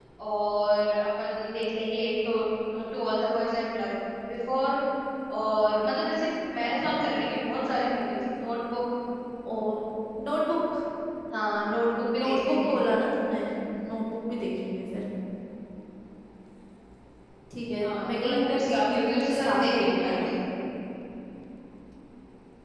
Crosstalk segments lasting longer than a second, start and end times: 17.8-20.3

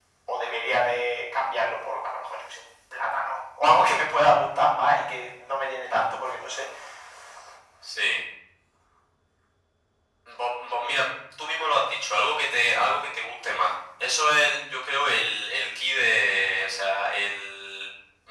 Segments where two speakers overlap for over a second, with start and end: none

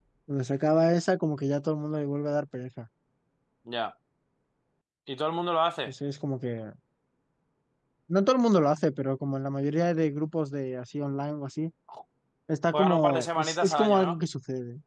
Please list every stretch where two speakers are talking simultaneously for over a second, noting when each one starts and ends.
12.7-14.2

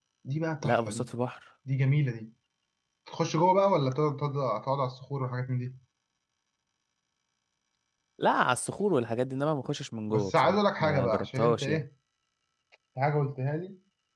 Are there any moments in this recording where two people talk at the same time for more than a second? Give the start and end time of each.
10.1-11.8

